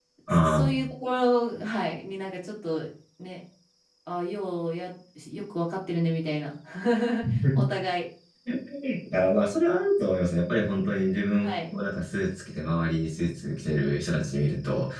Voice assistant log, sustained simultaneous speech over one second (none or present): none